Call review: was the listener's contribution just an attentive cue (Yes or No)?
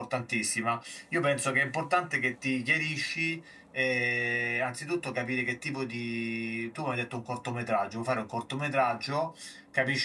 Yes